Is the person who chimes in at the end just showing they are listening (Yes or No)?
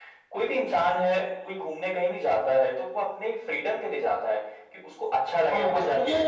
No